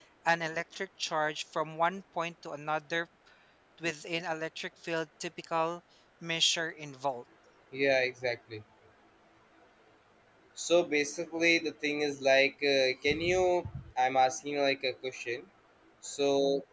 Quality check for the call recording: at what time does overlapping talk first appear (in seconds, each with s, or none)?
none